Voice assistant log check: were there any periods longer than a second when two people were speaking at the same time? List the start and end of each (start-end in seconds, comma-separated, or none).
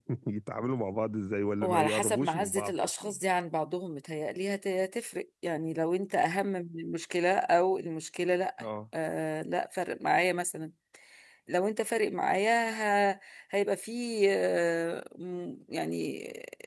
1.6-3.2